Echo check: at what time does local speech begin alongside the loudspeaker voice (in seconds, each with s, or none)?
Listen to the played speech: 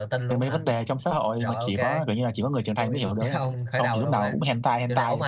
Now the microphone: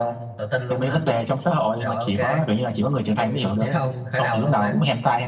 none